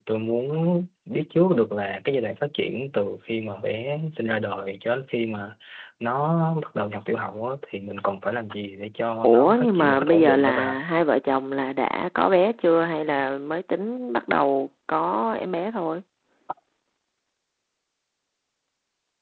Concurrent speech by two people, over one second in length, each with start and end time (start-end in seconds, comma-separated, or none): 9.2-10.8